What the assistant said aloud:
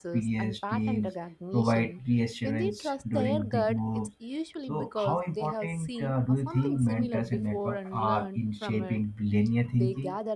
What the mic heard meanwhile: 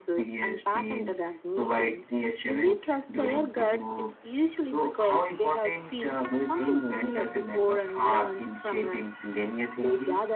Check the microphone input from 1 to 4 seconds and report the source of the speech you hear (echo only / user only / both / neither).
echo only